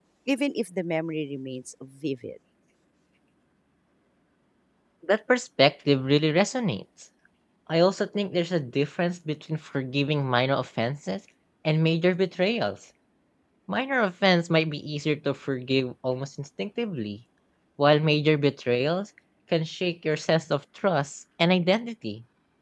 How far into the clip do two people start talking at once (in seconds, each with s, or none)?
none